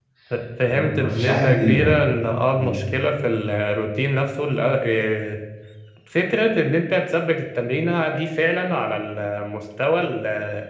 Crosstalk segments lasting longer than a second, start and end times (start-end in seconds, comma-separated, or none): 0.7-2.0